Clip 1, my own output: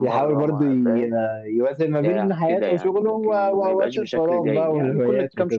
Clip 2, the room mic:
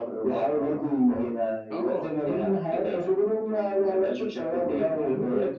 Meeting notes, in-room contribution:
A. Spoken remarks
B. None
A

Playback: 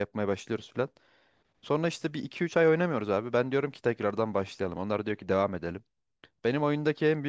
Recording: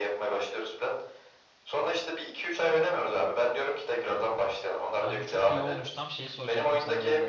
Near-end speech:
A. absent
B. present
B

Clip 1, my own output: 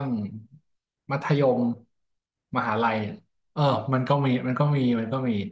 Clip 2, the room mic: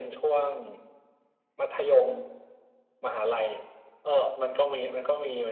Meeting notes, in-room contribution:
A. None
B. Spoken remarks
A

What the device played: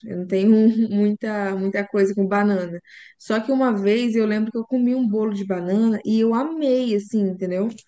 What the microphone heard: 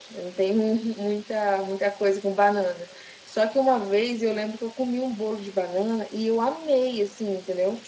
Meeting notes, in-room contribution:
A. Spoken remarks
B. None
B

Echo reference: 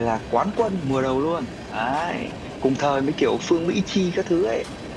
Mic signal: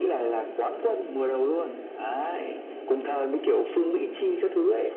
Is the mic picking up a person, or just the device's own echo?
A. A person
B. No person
B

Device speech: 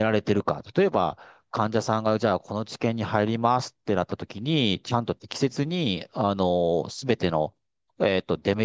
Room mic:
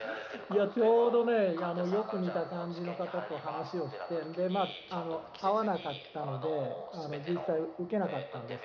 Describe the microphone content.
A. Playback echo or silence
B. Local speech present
B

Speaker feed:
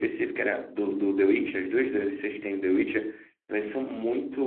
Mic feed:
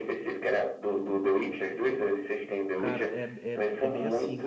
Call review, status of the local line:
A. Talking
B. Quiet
A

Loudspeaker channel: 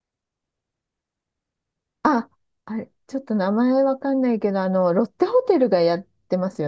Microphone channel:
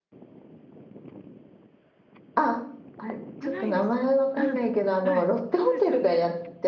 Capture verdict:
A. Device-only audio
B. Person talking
B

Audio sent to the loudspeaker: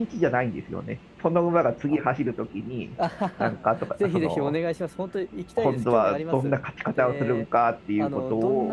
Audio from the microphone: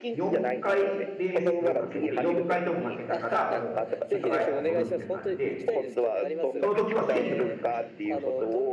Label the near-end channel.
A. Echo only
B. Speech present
B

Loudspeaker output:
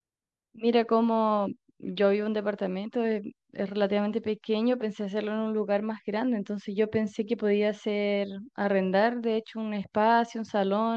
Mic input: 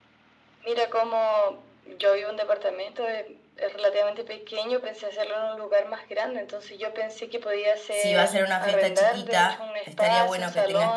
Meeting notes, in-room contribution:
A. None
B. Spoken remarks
B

